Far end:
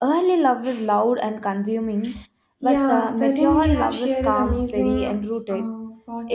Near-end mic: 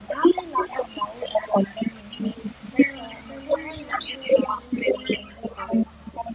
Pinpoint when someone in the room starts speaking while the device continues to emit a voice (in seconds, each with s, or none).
none